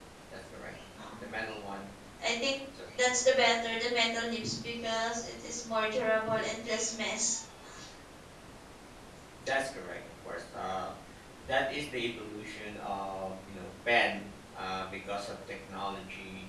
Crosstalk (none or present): none